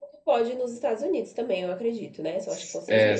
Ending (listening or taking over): taking over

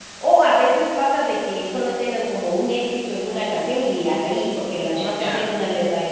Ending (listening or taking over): listening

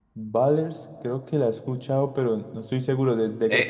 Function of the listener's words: taking over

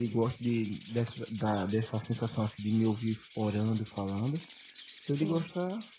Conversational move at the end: listening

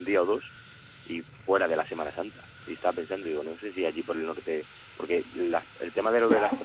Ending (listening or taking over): listening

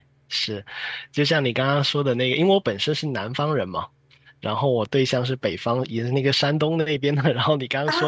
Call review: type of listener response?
listening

